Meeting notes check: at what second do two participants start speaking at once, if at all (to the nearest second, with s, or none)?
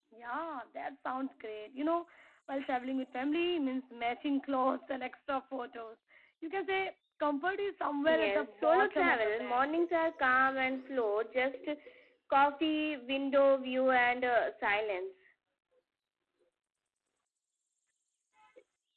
8 s